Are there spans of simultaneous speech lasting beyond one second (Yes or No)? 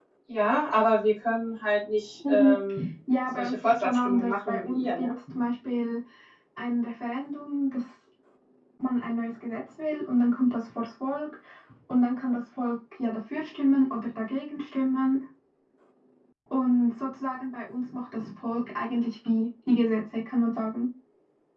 Yes